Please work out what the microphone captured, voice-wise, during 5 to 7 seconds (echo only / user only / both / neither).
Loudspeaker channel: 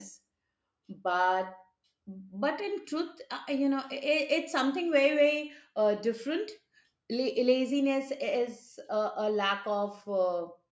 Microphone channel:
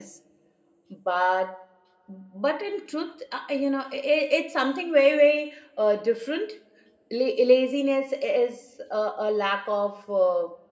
echo only